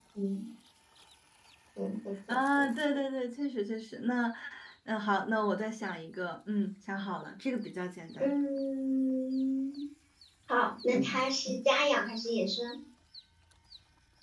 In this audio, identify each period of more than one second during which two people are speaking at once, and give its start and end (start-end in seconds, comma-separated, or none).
none